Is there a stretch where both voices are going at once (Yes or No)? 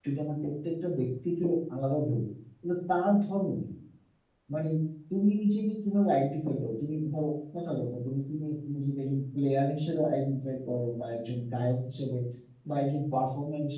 No